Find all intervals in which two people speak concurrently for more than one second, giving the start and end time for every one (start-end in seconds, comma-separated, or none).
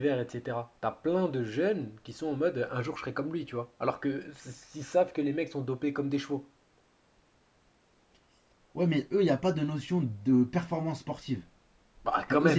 none